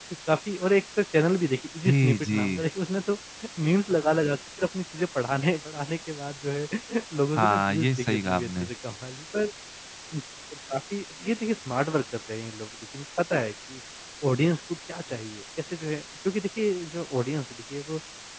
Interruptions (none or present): present